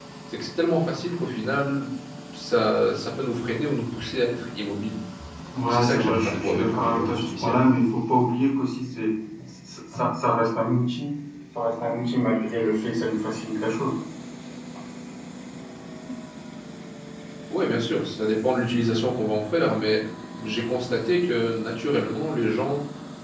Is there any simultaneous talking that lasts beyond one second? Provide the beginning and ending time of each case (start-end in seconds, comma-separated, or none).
5.6-7.6